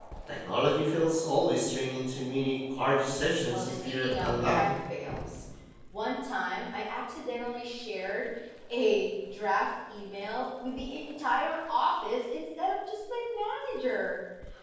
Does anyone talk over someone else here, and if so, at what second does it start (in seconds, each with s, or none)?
3.5 s